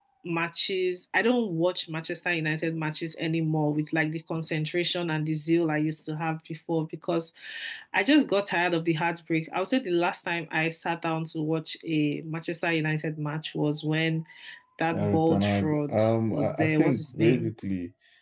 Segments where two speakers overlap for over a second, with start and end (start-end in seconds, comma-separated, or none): 14.9-17.5